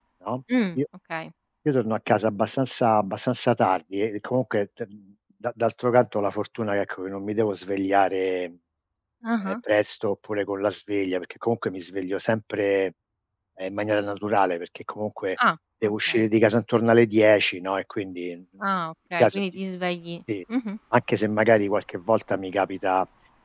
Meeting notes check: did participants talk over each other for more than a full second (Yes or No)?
No